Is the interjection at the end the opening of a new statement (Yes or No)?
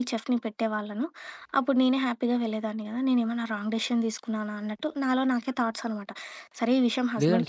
Yes